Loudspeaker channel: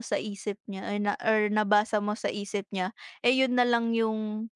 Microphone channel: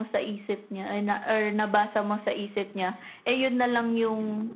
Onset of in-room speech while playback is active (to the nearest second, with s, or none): none